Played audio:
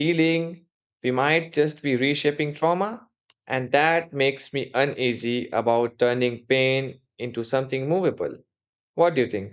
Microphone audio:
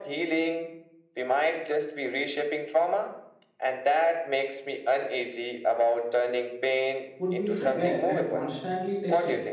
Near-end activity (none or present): present